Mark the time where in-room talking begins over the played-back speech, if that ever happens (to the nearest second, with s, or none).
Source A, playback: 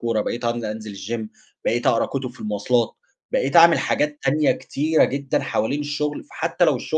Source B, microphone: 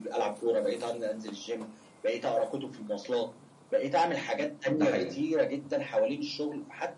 5 s